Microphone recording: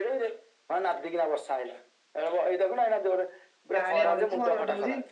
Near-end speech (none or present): present